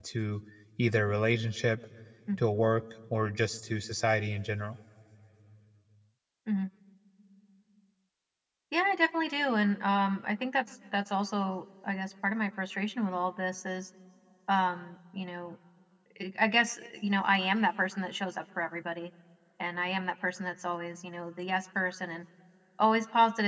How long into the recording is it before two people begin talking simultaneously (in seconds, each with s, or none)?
none